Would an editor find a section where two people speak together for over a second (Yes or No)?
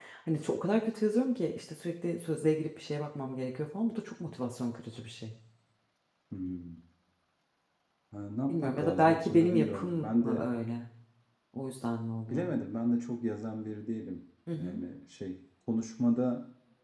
Yes